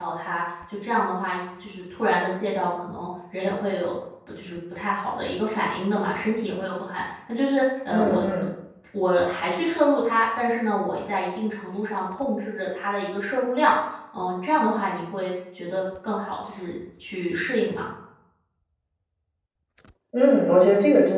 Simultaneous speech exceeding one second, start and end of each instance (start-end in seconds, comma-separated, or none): none